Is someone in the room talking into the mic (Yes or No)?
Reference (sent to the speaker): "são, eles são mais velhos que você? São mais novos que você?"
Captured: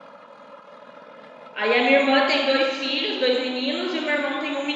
Yes